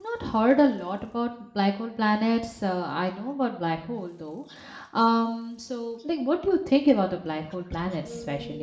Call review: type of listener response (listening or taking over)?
taking over